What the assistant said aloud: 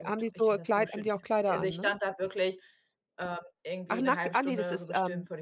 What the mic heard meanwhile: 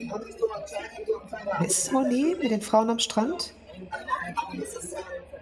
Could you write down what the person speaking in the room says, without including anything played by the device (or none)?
oder ist es Monet mit den Frauen am Strand?